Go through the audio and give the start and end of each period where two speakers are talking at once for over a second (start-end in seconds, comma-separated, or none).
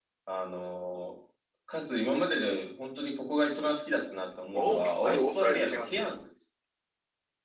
4.5-6.0